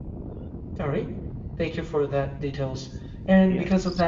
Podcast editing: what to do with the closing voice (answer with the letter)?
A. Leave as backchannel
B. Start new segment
A